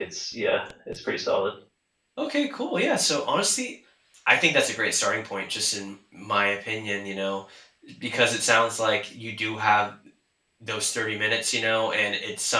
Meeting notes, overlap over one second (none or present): none